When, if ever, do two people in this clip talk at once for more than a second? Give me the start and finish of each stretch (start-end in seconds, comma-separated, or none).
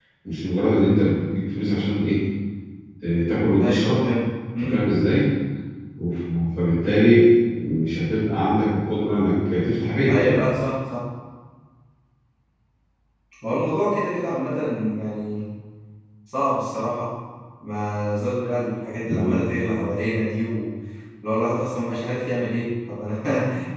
none